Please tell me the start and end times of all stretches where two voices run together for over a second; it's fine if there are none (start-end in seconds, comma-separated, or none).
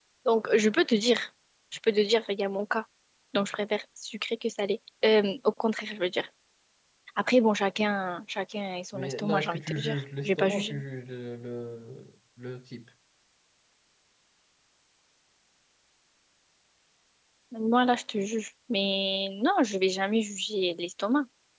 8.9-10.8